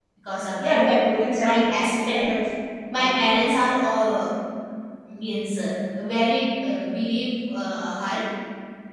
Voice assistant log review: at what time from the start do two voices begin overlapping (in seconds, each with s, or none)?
0.6 s